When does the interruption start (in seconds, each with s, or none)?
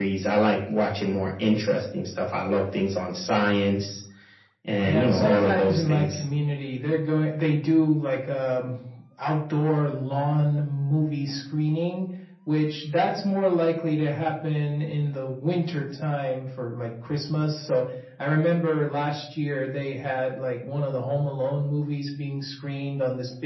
4.8 s